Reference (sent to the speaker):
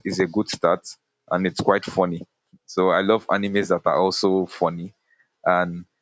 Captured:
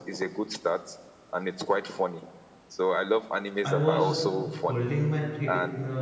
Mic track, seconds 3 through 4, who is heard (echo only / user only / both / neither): both